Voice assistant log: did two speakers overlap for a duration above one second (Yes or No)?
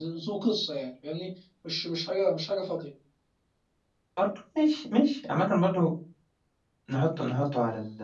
No